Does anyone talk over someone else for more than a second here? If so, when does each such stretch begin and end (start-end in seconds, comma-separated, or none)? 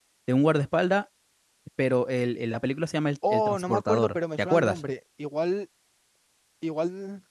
3.3-4.8